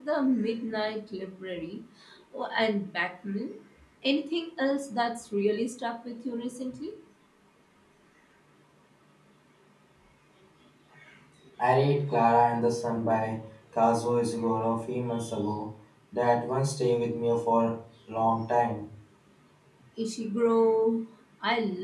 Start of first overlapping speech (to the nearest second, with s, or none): none